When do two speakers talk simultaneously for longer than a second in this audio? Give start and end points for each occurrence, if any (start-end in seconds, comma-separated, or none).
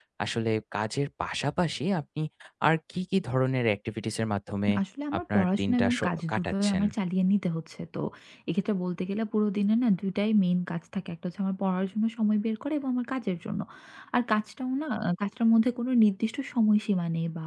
5.2-6.8